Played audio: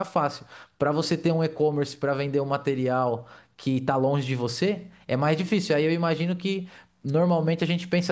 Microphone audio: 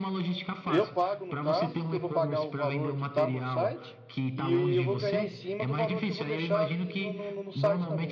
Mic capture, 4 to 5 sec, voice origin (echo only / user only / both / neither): both